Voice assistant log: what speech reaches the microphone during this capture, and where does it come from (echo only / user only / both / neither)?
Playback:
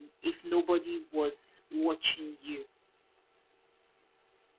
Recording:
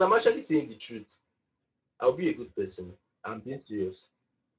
user only